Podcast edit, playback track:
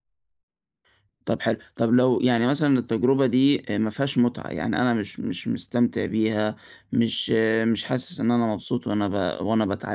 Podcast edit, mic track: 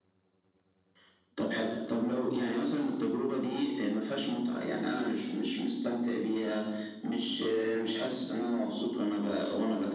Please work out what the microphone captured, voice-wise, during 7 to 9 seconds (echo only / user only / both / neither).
echo only